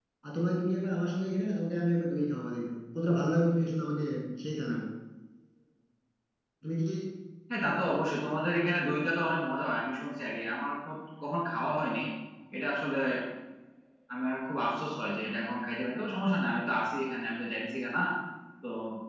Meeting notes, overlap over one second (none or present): none